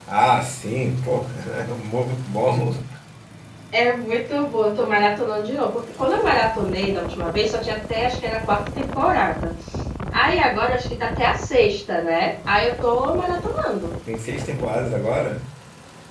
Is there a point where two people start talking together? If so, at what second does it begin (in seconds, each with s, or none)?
none